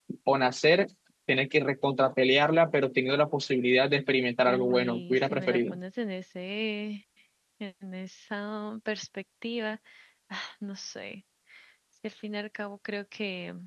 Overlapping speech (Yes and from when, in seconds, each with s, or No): Yes, from 4.4 s